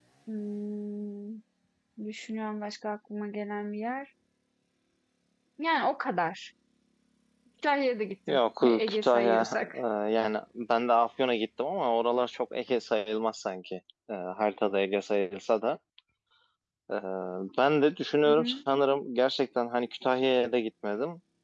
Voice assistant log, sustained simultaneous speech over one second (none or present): present